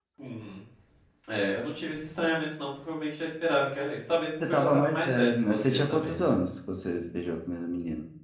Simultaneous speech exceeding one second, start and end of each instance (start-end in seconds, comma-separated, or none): 4.4-6.3